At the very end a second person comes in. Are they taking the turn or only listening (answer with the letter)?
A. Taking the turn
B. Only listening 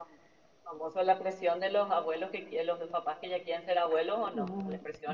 A